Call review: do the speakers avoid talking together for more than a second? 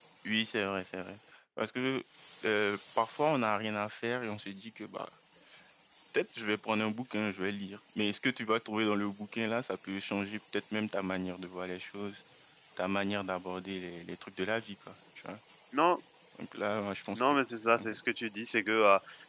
Yes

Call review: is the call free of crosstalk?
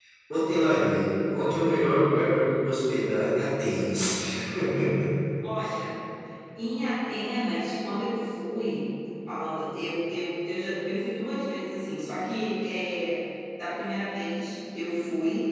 Yes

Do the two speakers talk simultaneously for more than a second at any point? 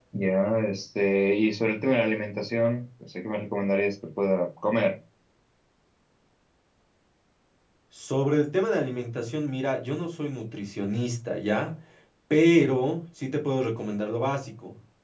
No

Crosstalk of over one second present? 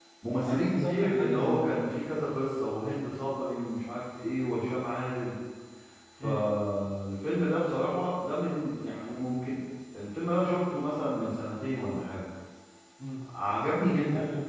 Yes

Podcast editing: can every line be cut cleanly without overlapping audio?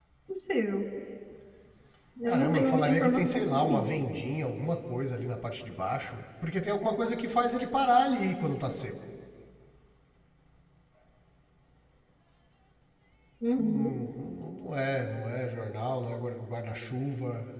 No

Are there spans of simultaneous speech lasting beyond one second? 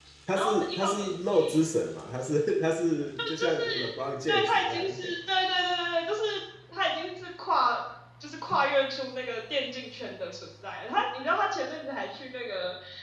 Yes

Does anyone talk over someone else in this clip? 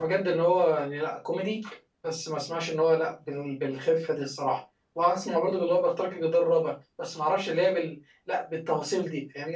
No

